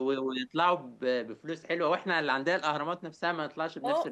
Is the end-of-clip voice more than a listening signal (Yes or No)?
Yes